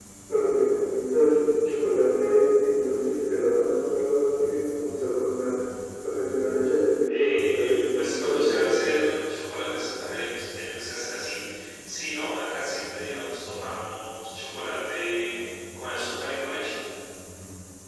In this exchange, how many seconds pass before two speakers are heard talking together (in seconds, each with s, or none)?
7.1 s